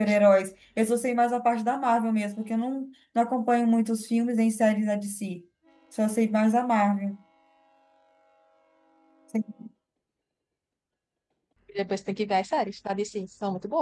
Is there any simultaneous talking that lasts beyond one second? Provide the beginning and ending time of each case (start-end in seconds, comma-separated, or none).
none